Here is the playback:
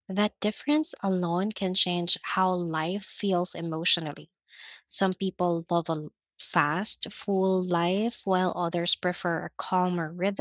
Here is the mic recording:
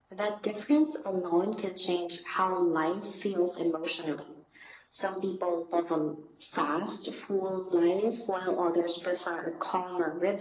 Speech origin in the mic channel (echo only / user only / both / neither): echo only